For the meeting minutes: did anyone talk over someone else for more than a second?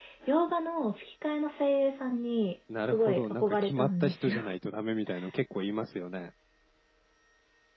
Yes, from 2.7 s

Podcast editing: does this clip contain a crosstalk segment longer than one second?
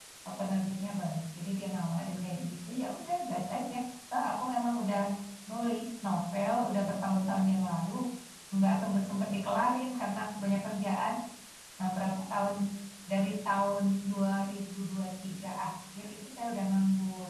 No

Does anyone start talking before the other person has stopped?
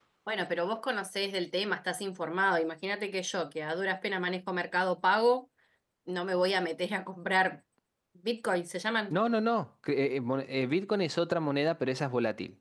No

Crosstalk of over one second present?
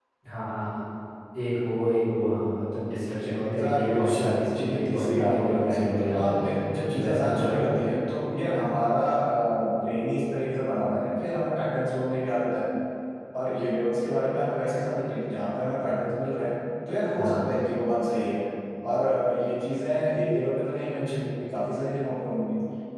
Yes, from 3.4 s

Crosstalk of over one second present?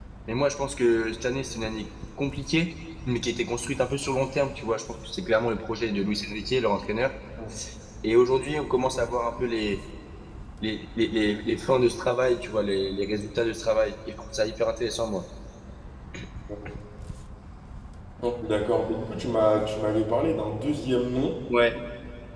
No

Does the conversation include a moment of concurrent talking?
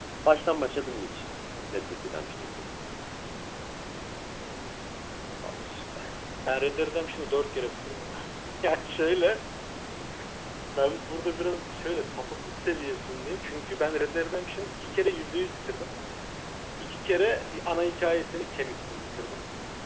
No

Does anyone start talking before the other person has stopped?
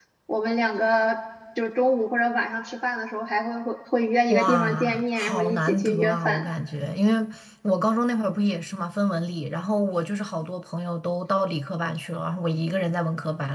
Yes, from 4.3 s

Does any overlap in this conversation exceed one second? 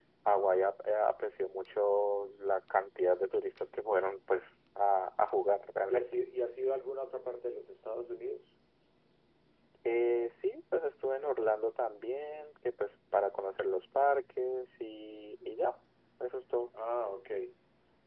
No

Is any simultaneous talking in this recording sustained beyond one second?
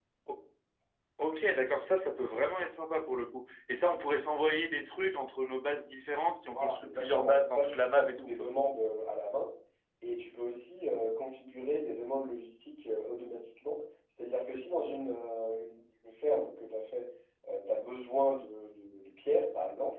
Yes, from 6.5 s

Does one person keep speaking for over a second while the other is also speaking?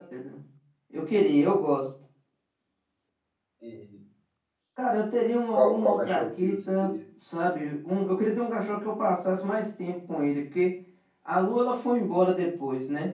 Yes, from 5.5 s

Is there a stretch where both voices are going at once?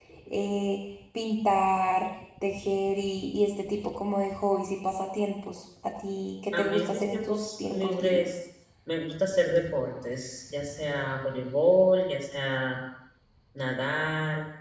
Yes, from 6.5 s

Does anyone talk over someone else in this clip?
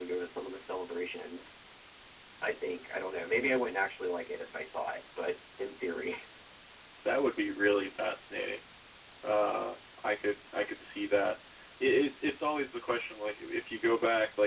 No

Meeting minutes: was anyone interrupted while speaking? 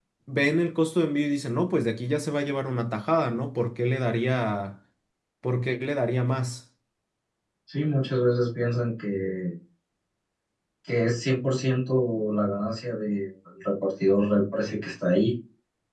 No

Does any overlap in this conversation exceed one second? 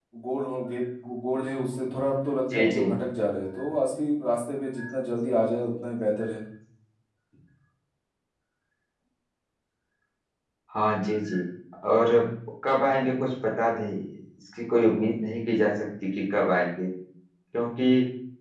No

